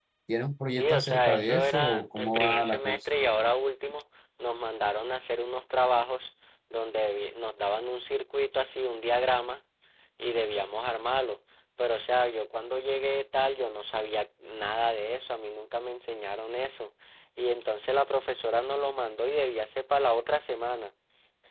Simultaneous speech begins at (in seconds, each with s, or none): 0.8 s